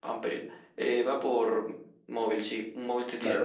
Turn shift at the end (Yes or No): Yes